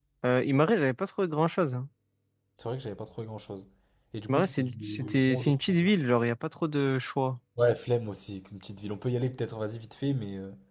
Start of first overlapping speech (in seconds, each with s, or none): 4.3 s